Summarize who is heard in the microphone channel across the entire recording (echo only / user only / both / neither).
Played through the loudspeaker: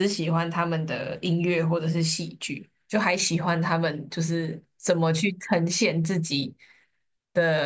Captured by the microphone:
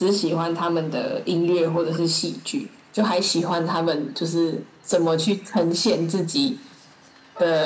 echo only